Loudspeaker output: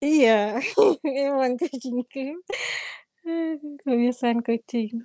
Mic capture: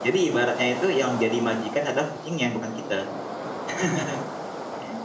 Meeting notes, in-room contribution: present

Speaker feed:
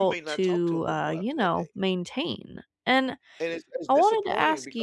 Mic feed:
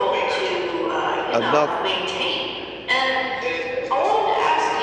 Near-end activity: present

